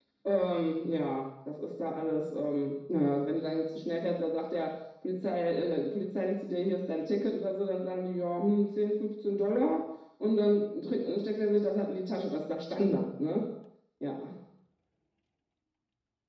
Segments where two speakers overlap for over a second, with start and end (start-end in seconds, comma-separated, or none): none